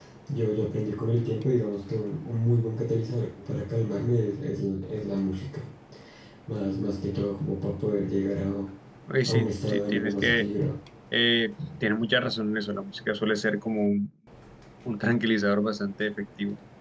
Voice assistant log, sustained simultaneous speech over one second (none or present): present